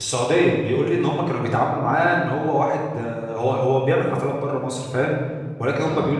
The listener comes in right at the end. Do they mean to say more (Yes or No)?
No